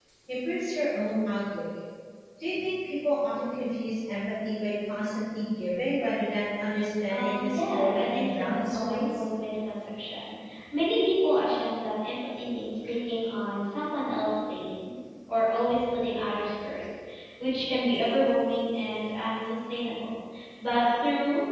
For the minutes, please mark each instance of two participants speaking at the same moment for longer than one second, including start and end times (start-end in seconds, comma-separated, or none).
7.1-9.2